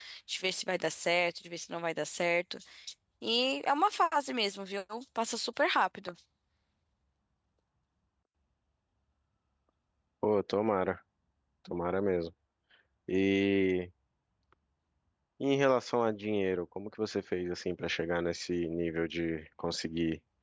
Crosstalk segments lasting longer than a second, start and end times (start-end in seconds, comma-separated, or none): none